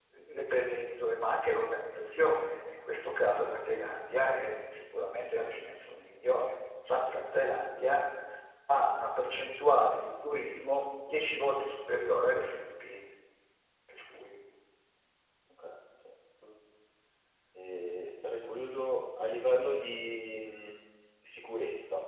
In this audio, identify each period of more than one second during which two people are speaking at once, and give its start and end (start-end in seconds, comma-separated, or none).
none